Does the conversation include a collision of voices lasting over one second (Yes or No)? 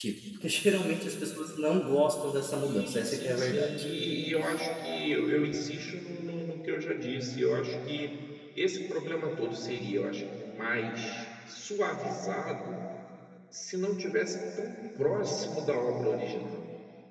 Yes